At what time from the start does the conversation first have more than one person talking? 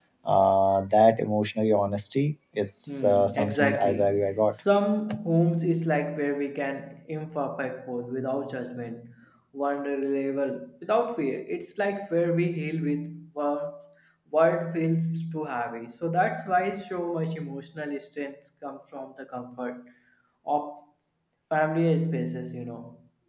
2.9 s

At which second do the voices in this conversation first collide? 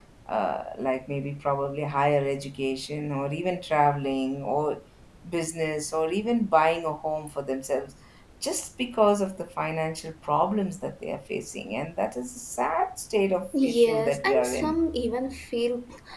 13.5 s

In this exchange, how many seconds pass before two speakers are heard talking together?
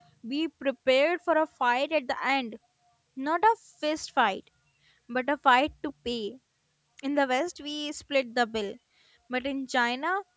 none

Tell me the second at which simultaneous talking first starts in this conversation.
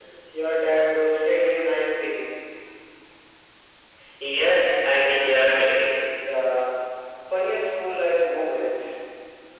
none

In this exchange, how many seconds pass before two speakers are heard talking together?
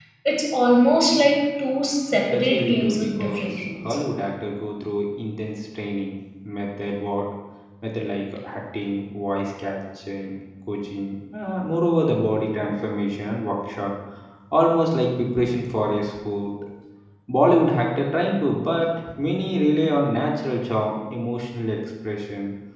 2.3 s

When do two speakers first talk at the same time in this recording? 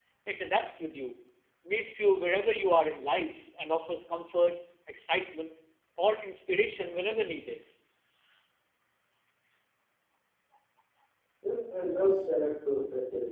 none

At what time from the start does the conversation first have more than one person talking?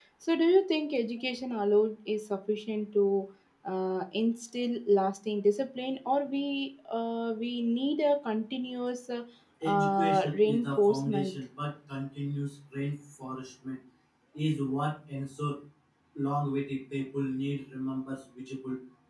9.7 s

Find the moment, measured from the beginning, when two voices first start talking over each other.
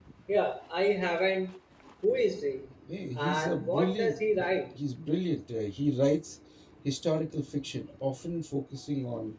3.2 s

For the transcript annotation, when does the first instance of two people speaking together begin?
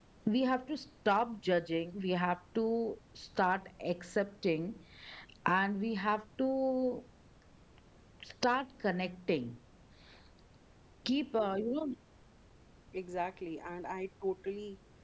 none

